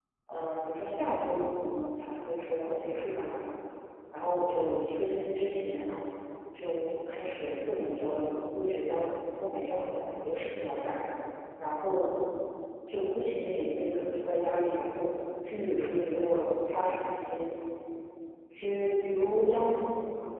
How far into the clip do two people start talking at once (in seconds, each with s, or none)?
none